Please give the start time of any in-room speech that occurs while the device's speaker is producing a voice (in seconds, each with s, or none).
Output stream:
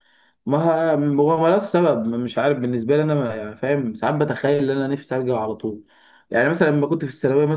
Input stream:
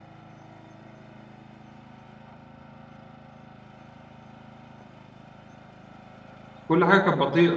6.7 s